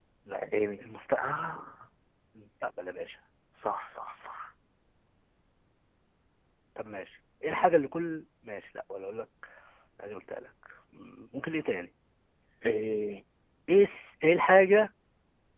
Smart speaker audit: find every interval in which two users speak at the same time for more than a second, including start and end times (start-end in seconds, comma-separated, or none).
none